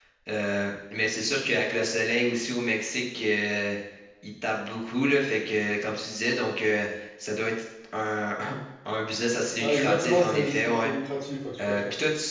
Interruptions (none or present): present